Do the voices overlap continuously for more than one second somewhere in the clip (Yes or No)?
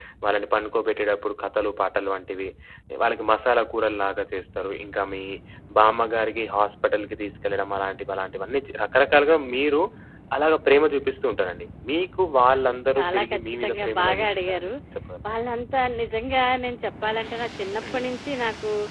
Yes